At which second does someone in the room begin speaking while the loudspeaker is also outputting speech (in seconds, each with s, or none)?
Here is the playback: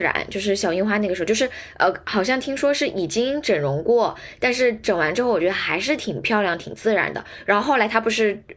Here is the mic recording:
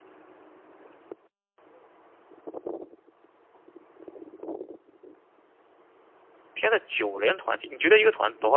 6.5 s